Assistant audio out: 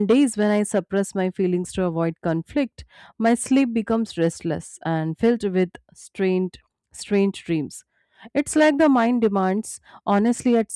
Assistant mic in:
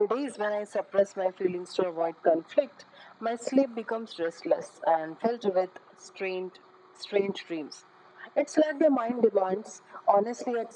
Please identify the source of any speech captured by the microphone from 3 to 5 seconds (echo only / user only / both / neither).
echo only